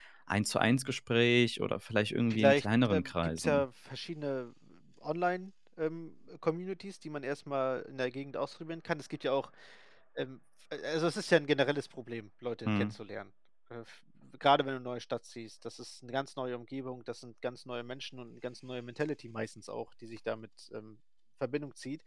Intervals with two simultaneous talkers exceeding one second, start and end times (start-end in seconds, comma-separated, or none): 2.3-3.6